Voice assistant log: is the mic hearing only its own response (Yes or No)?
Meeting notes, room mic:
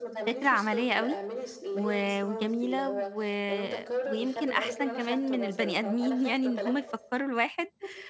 No